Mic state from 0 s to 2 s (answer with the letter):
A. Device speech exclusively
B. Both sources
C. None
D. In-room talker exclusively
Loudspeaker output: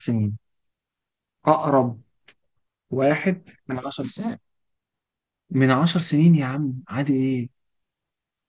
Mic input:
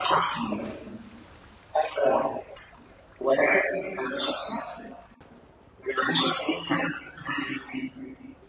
A